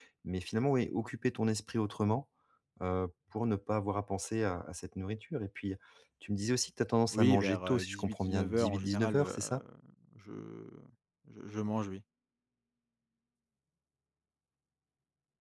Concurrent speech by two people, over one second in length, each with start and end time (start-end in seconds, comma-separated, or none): 7.1-9.4